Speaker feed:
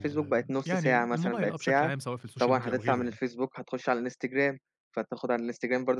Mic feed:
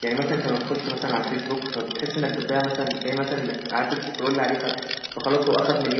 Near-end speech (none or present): present